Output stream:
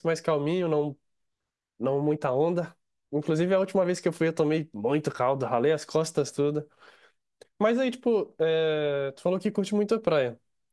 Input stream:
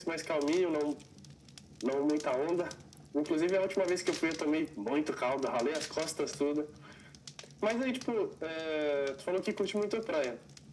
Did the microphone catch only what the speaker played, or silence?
Yes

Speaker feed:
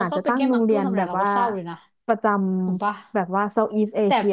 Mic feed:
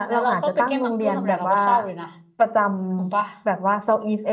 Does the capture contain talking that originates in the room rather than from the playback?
No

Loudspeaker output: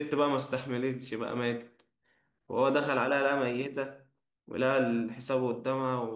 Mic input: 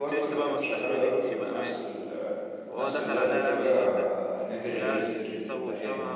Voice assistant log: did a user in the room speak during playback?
Yes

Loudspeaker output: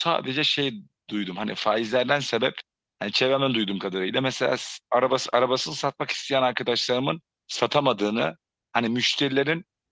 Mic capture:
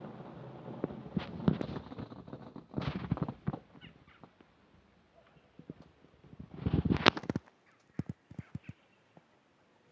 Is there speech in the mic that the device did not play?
No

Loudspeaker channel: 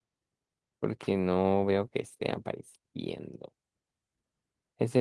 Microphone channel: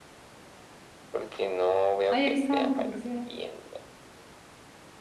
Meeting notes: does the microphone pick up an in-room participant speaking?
Yes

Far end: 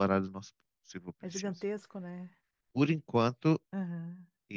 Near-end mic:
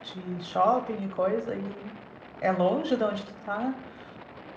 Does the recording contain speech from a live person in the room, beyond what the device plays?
Yes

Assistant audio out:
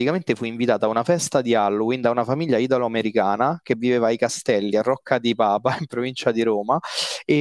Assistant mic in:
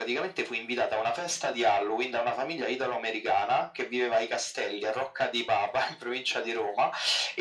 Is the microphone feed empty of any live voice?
Yes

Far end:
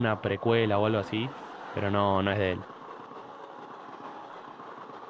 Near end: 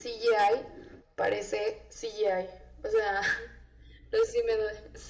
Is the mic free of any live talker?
No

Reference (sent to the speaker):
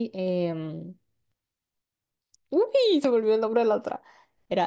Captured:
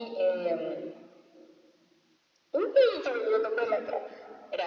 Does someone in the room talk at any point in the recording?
No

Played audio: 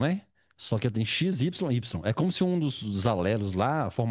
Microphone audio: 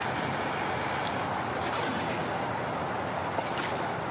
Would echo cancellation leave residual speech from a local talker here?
No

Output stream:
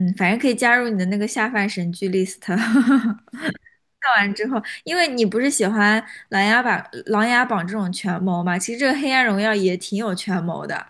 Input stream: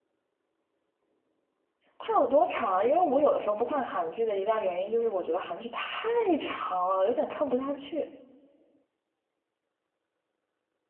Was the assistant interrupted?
Yes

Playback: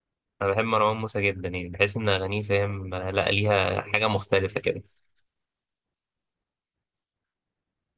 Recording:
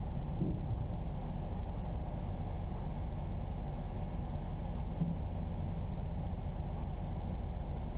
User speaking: No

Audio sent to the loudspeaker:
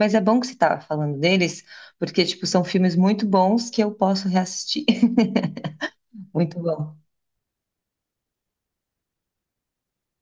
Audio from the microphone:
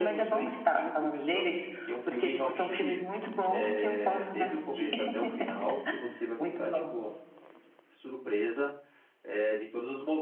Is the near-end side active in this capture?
Yes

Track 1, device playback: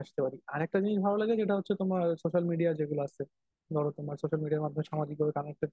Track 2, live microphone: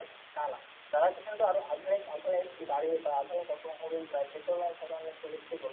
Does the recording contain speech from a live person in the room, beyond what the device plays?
Yes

